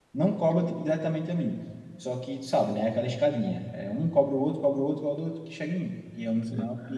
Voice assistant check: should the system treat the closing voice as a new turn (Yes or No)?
Yes